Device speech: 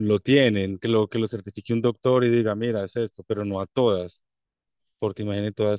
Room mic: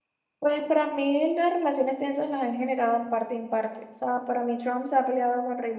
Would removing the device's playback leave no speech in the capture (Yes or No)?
No